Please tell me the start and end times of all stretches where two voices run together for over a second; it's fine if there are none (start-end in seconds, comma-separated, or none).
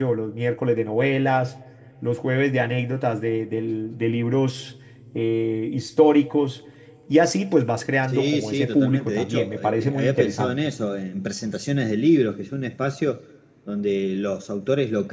8.0-10.6